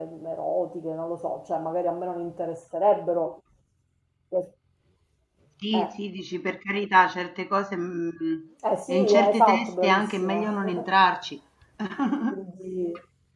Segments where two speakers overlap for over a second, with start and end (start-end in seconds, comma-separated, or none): 8.9-10.8